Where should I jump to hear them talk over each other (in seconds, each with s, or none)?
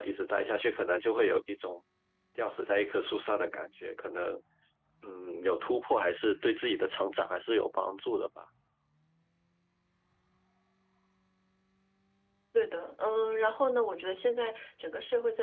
none